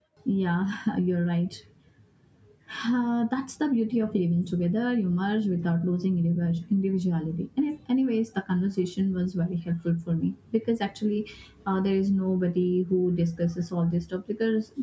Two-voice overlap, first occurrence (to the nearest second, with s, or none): none